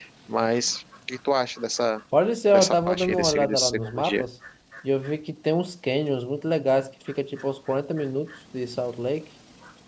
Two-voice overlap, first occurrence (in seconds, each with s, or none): 2.5 s